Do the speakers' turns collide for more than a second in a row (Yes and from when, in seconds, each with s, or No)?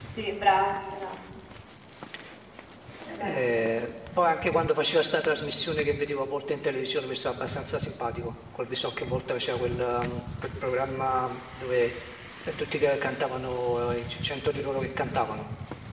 No